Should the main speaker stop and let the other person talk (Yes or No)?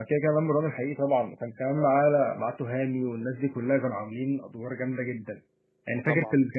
No